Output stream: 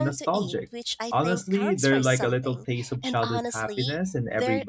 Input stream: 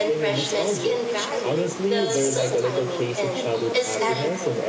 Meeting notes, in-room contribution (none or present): present